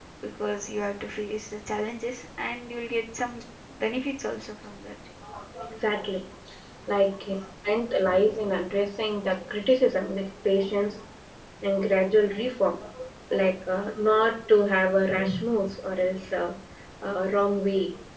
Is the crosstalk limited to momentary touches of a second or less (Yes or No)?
Yes